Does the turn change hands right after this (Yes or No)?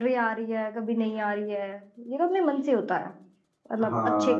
Yes